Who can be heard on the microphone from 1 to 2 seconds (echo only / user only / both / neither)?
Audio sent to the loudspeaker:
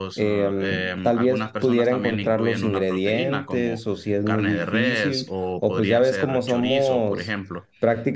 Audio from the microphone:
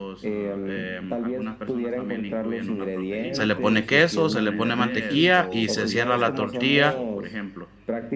echo only